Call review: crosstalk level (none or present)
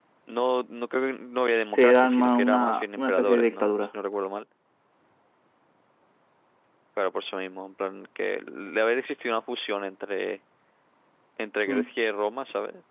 present